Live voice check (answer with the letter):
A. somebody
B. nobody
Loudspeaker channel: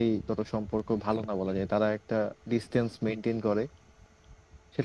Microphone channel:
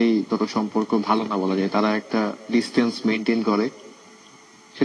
B